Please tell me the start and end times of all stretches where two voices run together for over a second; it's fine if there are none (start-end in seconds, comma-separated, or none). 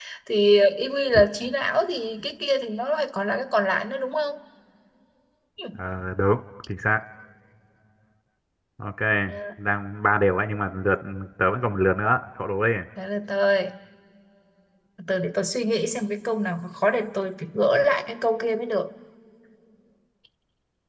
none